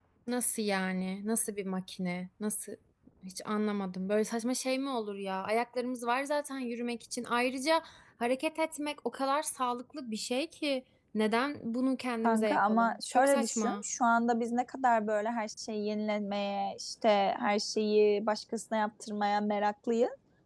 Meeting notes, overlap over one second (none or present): present